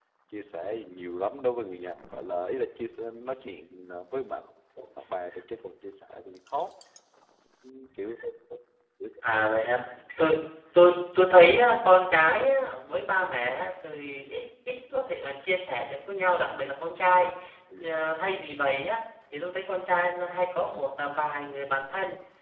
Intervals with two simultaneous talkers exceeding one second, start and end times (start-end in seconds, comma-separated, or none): none